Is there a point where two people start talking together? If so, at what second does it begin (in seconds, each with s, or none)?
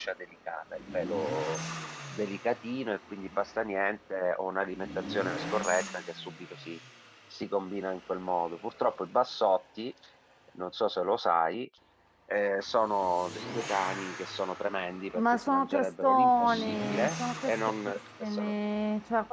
15.1 s